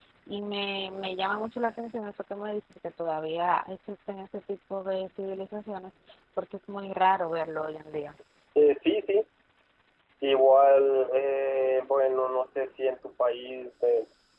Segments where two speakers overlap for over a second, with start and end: none

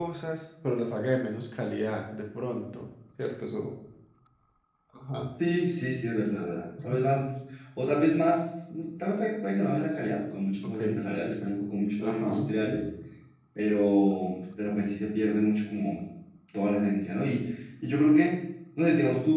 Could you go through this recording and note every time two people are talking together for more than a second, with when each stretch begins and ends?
none

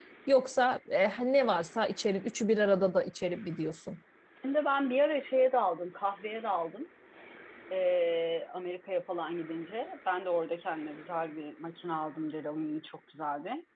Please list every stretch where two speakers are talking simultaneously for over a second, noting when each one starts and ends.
none

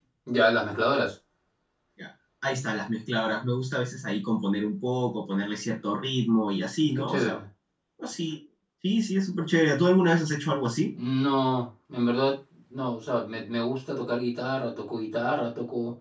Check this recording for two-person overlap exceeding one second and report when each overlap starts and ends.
none

